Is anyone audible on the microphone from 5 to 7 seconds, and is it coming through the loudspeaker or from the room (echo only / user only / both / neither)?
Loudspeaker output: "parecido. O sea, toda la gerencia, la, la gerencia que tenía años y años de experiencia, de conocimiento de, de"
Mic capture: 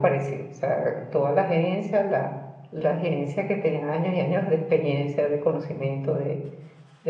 echo only